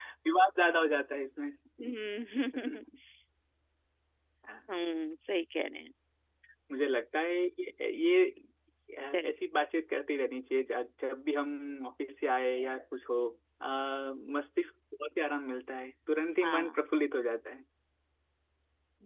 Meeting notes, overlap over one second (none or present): none